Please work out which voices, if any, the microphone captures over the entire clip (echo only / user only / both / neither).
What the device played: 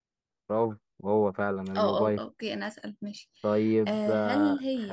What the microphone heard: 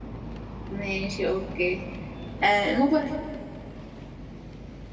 user only